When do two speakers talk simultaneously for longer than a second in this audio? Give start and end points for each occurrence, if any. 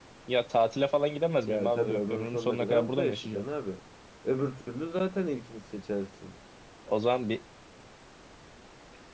1.4-3.4

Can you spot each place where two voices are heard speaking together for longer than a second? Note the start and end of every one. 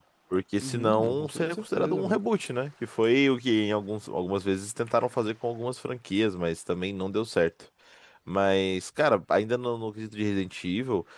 0.6-2.2

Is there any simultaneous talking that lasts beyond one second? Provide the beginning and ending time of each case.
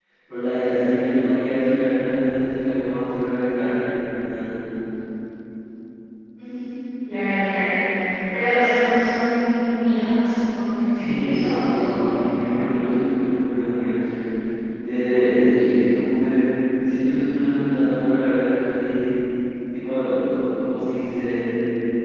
10.9-12.2

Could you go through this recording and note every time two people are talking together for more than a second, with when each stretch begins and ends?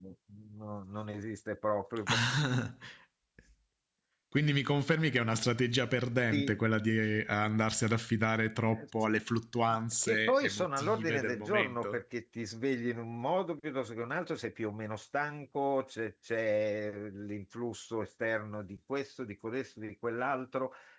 10.0-12.0

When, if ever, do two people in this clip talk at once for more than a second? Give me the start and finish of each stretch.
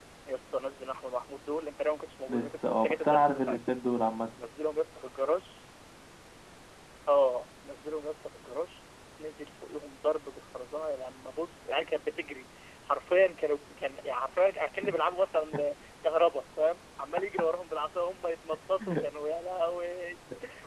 2.3-3.6

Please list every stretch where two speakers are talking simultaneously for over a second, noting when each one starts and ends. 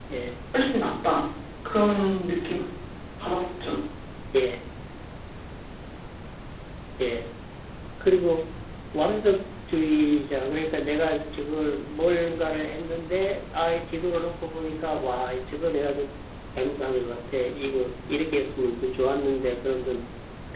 none

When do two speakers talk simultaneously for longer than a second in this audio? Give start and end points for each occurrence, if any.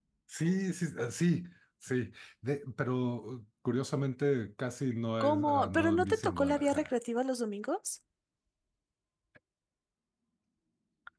5.2-6.9

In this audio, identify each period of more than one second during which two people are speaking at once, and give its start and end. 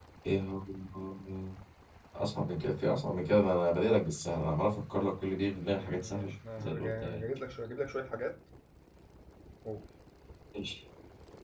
5.8-7.3

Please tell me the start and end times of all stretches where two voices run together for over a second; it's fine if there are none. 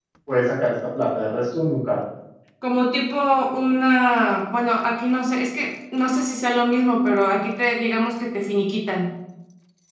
none

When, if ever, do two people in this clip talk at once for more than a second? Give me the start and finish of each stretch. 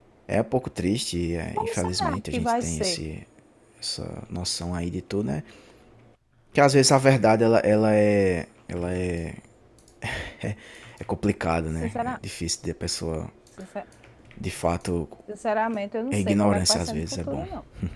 1.6-3.0, 16.1-17.5

